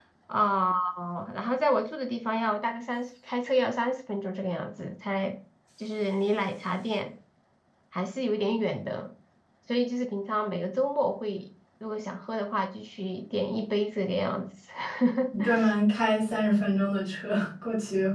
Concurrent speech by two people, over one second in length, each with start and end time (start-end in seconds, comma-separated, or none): none